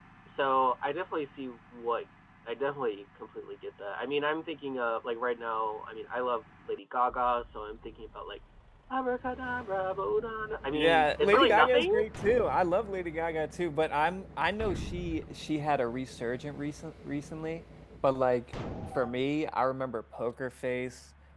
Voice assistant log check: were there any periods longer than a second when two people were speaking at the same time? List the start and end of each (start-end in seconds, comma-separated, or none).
10.7-11.9